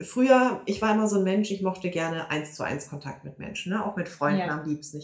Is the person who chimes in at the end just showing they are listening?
Yes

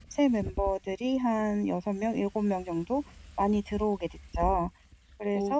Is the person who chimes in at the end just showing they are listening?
No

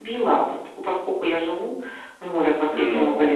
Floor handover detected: No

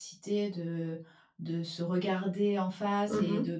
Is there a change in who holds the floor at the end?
No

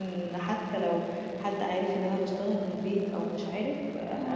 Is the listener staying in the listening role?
Yes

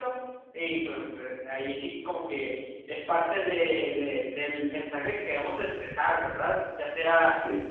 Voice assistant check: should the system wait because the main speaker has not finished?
Yes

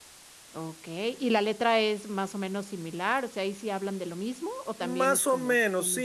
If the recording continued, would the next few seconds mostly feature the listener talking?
Yes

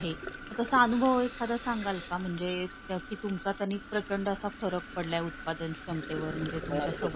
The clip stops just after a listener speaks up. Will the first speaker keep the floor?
No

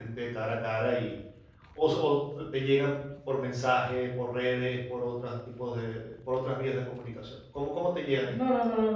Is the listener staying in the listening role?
No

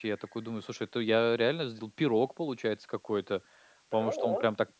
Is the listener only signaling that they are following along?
Yes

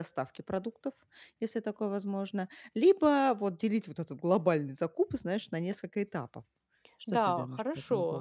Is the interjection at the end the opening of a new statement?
Yes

